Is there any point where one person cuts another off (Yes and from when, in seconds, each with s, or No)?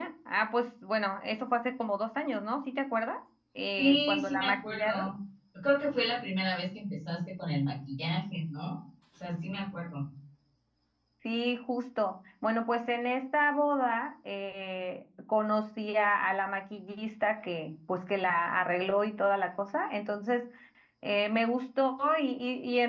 Yes, from 3.8 s